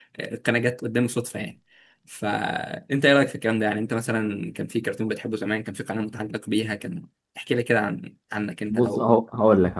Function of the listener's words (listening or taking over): taking over